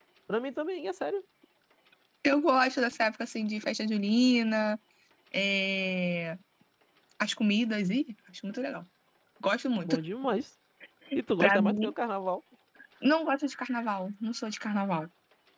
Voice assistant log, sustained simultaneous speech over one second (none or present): none